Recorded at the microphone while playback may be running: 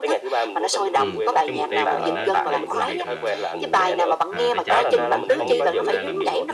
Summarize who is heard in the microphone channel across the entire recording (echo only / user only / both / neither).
both